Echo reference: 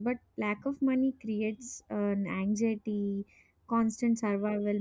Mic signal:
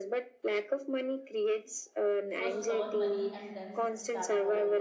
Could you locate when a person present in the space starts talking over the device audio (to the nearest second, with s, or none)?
2 s